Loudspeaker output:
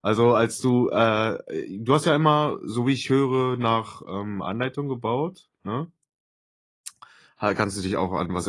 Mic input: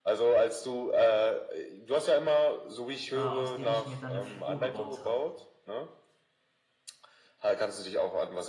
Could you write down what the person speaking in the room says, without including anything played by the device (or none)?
äh, aus denen ich mir dann 'ne Figur gebaut habe,